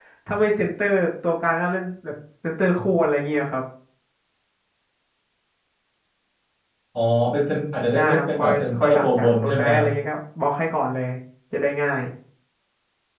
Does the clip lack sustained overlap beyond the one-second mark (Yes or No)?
No